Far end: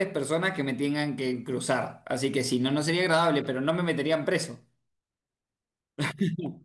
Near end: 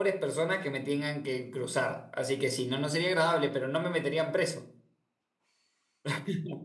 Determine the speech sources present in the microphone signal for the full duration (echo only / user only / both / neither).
echo only